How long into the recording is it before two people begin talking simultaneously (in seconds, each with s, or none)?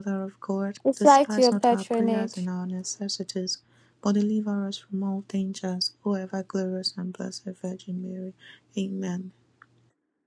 1.0 s